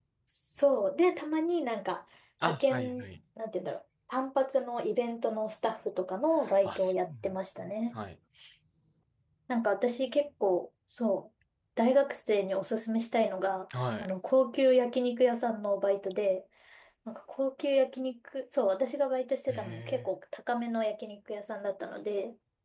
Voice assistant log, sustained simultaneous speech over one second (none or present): present